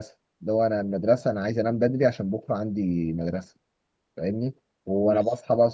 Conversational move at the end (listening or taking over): listening